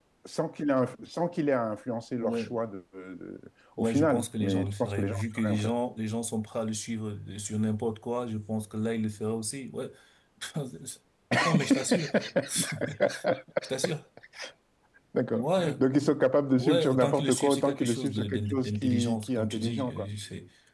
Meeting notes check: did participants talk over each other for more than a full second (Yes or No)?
Yes